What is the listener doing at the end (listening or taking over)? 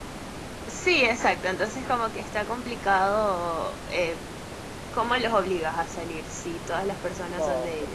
taking over